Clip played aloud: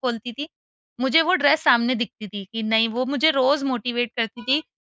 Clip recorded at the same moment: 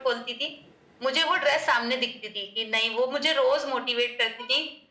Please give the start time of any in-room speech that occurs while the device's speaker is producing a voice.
none

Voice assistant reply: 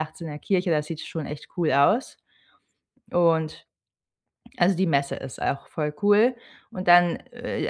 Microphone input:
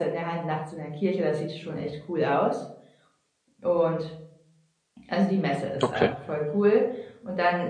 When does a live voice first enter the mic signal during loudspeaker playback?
6 s

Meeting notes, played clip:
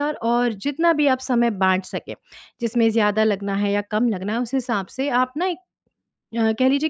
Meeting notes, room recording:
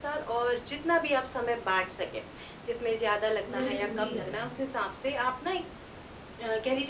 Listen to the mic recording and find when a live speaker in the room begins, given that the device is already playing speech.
3 s

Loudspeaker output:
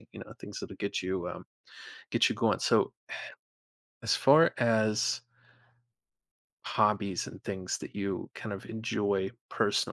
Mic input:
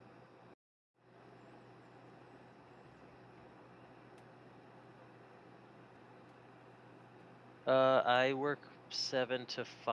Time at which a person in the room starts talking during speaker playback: 8 s

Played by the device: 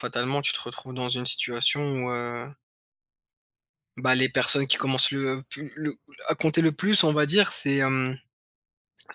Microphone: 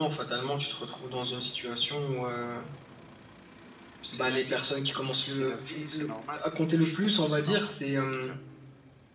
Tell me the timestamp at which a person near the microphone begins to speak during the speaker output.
4 s

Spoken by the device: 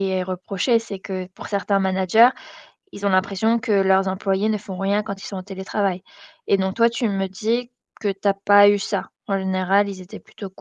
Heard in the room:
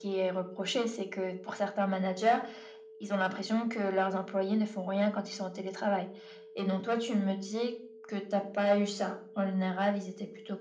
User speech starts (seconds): none

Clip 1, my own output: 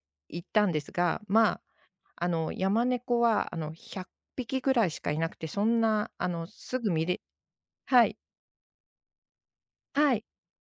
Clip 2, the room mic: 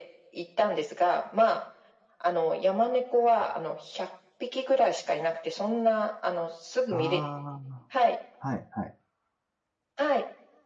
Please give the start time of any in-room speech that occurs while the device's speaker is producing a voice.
7 s

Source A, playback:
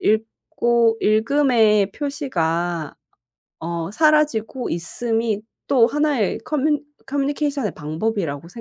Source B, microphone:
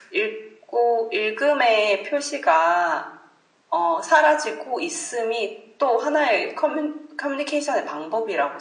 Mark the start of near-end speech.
none

